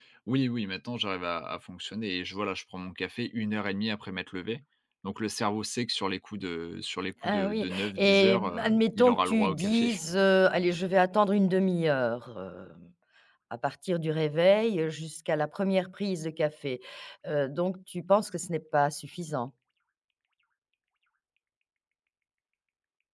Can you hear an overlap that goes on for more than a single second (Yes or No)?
Yes